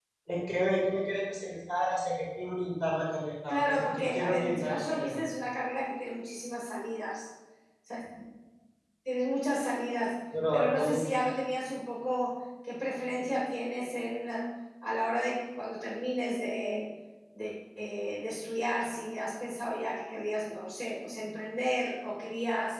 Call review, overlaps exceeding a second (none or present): present